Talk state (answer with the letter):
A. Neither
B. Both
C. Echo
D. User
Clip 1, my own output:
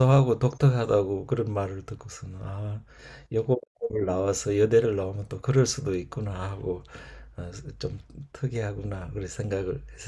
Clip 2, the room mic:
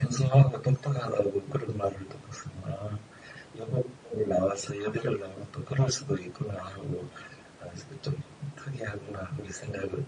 C